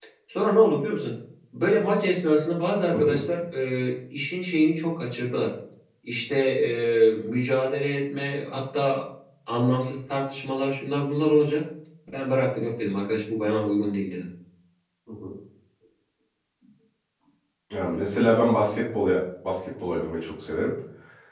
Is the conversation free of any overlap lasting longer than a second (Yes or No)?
Yes